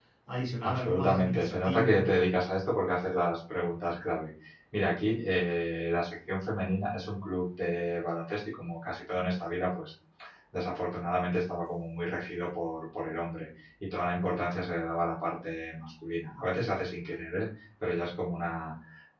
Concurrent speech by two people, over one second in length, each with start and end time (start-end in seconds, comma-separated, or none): 0.6-2.0